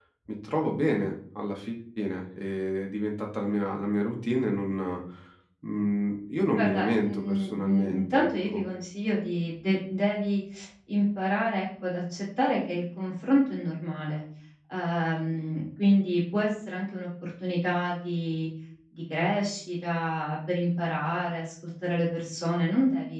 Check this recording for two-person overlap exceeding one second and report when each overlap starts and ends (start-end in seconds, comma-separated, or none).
6.5-8.6